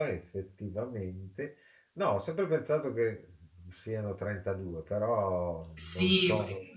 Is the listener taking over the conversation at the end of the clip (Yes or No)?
Yes